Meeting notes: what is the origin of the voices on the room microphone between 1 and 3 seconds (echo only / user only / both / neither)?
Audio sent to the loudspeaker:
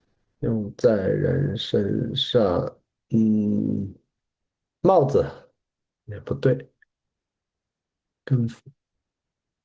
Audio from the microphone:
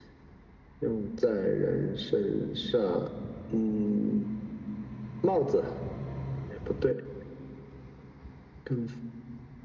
echo only